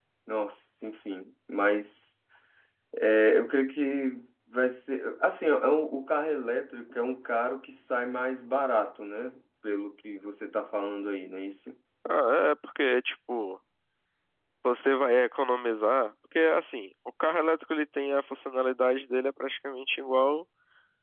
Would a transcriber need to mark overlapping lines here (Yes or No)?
No